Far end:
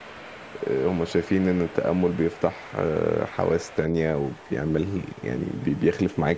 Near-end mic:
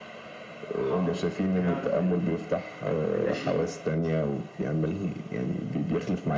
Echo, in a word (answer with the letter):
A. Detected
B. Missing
A